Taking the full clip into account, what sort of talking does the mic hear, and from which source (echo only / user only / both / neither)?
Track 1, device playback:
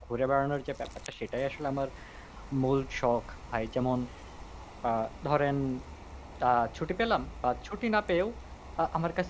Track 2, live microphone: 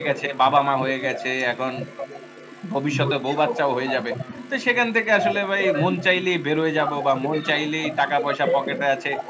both